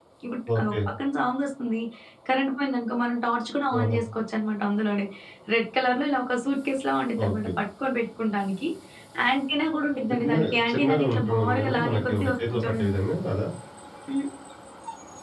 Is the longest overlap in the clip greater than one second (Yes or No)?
Yes